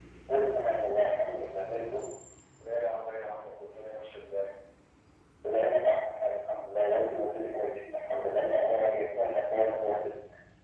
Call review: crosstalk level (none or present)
none